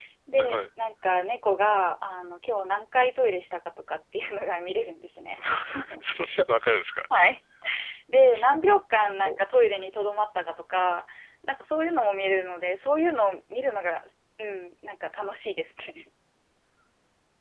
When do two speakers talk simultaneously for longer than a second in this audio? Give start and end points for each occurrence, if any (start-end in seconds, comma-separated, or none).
none